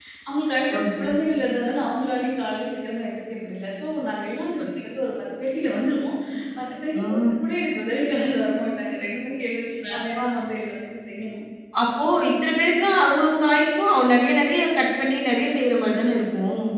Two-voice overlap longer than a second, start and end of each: none

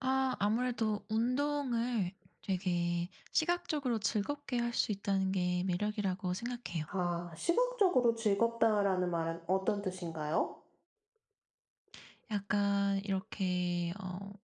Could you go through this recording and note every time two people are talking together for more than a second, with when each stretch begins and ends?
none

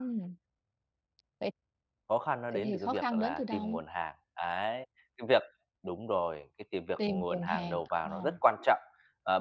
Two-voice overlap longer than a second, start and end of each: 2.5-3.7, 7.1-8.3

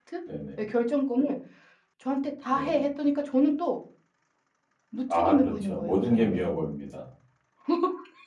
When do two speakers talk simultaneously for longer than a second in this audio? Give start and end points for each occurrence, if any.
5.1-6.5

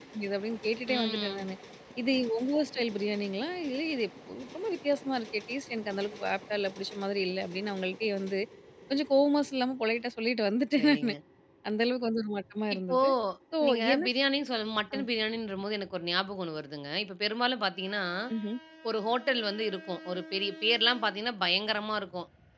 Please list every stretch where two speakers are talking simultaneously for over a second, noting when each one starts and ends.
none

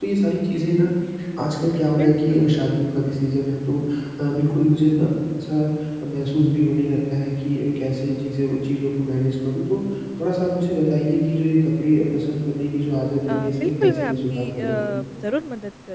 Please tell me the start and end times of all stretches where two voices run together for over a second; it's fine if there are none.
13.3-14.6

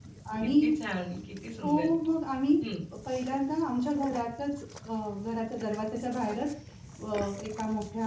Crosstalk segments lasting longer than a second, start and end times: none

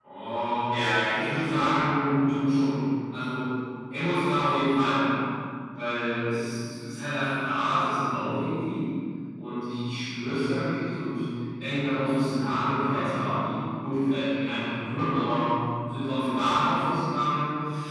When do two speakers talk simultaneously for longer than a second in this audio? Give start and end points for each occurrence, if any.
0.7-1.9

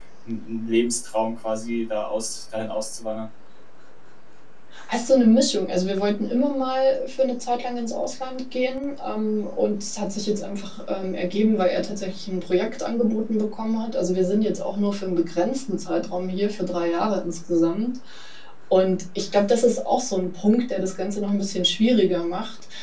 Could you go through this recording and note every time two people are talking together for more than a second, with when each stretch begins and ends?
none

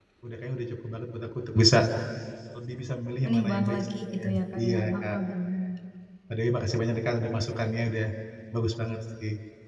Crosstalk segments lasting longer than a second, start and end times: 3.2-5.2

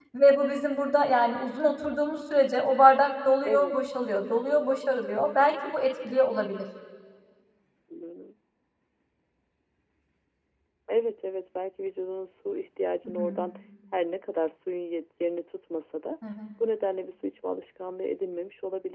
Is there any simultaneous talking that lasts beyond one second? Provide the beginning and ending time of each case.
none

